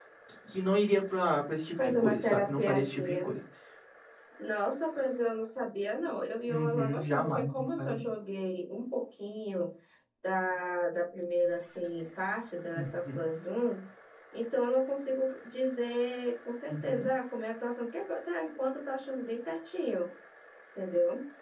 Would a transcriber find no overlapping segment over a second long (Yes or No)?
No